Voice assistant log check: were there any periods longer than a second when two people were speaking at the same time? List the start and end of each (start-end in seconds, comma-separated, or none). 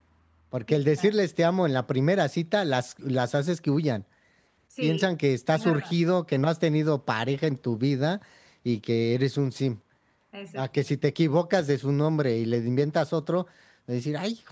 none